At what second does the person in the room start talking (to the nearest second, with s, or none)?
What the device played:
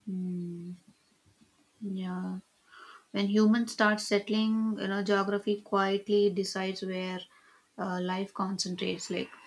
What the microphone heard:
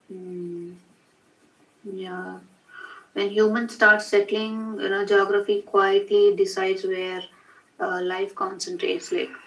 none